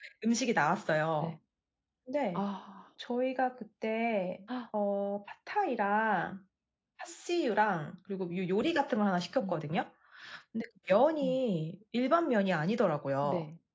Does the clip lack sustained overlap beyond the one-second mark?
Yes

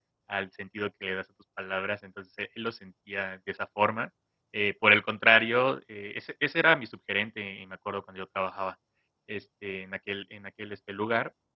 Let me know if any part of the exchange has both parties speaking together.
No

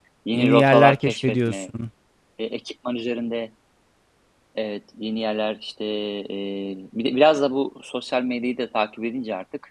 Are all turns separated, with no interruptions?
No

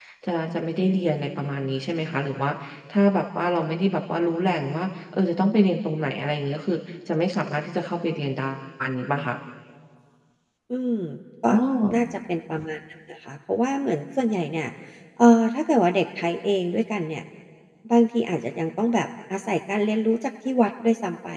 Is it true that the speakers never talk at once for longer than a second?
Yes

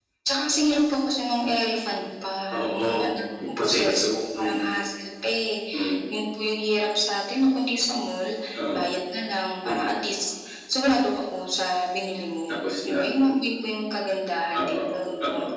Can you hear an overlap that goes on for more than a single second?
Yes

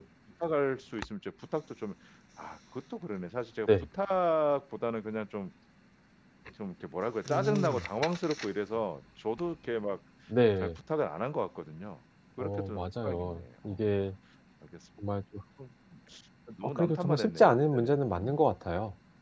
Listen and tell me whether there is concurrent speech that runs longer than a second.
Yes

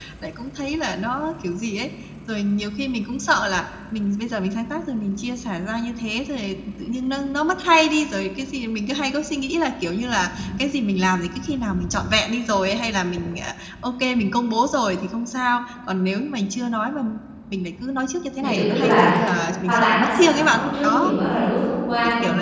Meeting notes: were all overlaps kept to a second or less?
No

